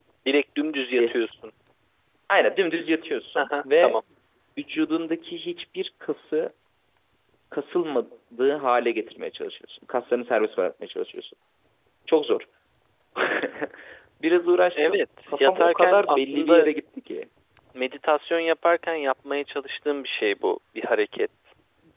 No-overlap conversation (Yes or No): No